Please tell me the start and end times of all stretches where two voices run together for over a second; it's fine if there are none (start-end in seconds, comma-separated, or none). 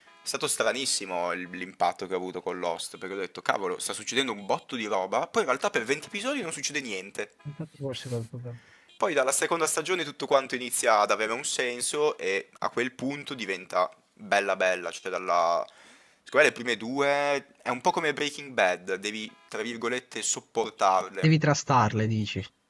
none